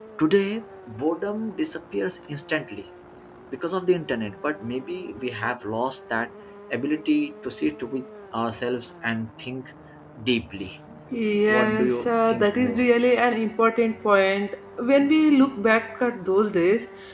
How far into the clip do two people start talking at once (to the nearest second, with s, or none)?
11 s